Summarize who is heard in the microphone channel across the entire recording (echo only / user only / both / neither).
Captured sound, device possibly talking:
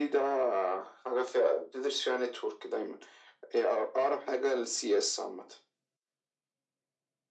echo only